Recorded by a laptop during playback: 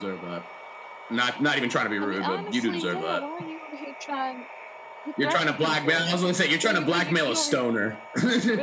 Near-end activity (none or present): present